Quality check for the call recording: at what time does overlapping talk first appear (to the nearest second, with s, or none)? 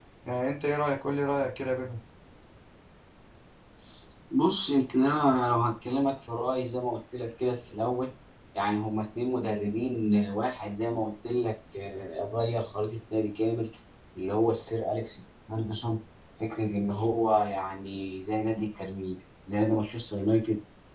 none